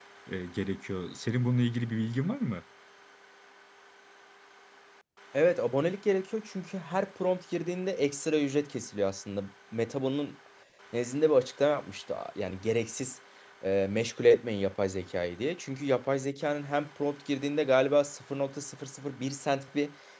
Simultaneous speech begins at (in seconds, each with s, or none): none